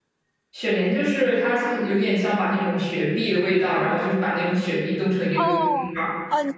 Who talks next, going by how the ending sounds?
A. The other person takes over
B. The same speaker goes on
A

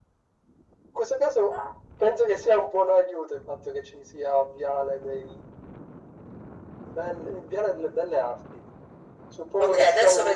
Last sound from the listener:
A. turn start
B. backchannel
A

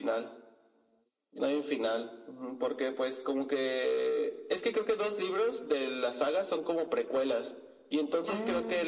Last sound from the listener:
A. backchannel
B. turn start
A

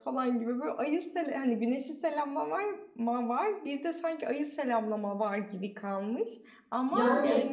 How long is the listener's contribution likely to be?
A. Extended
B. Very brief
B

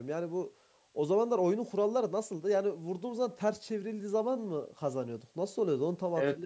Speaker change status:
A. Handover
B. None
A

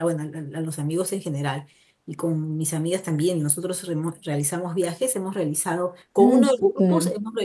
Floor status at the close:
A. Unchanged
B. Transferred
A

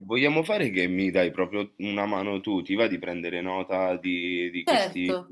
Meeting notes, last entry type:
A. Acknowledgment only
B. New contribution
B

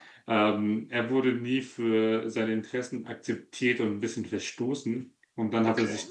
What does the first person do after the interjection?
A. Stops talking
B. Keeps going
B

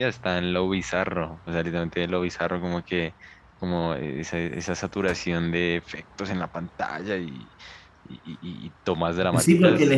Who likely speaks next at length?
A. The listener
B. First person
A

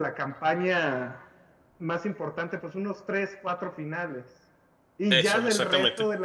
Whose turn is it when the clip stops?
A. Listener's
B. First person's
B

